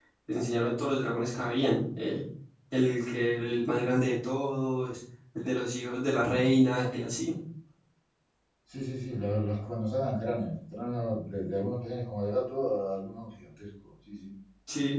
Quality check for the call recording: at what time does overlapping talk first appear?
none

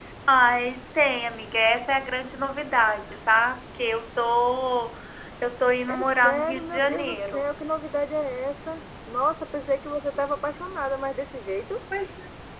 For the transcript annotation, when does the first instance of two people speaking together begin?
6 s

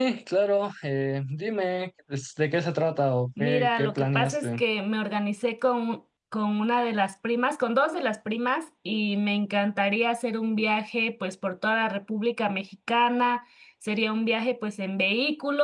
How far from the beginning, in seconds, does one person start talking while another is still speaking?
3 s

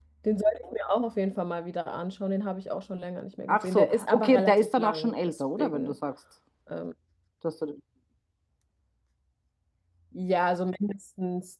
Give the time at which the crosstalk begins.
3 s

